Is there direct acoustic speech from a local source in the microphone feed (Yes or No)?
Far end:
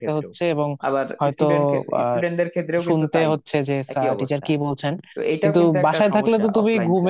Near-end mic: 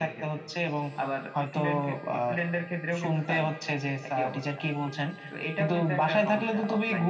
No